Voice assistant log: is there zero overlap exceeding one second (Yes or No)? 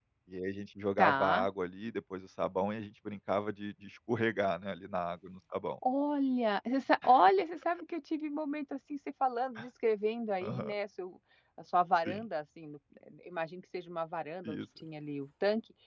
Yes